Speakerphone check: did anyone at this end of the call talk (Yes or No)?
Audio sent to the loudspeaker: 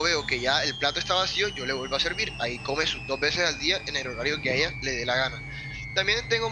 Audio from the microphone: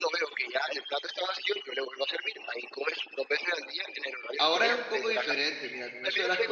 Yes